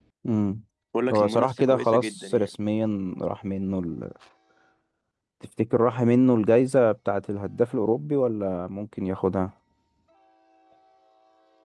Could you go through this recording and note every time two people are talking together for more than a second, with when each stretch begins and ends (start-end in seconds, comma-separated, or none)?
1.1-2.5